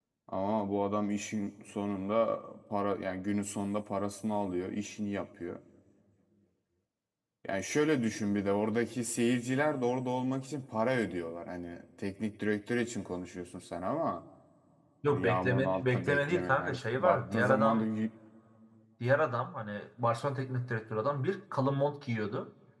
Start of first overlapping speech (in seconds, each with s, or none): 15.1 s